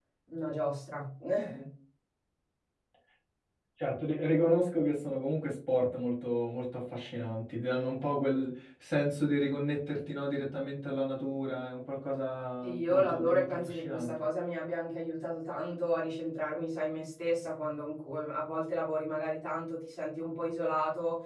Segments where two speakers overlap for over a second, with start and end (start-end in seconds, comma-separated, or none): 12.6-14.2